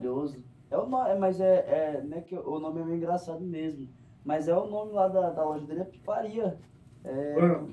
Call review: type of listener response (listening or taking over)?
listening